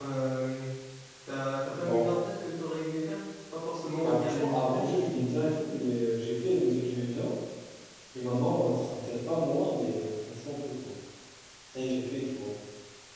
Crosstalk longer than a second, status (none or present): present